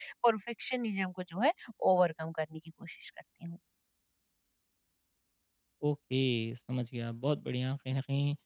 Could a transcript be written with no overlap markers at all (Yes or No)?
Yes